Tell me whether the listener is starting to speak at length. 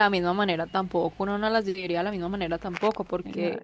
No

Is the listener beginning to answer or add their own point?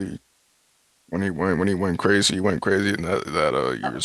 Yes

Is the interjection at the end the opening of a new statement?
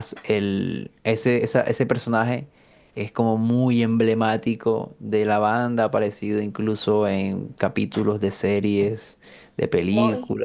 Yes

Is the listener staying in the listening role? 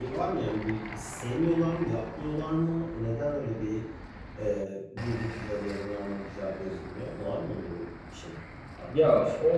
No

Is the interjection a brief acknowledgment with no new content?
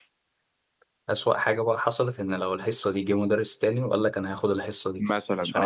No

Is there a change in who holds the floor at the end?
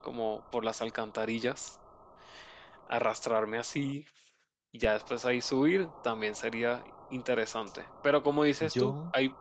No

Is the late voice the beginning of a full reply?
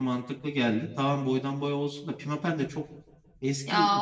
Yes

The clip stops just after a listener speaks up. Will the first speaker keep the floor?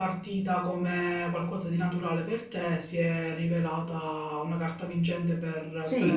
No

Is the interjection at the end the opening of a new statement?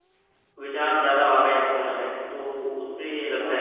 No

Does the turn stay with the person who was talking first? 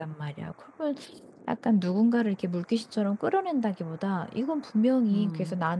Yes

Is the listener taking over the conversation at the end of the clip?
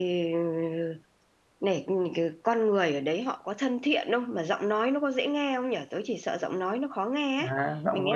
Yes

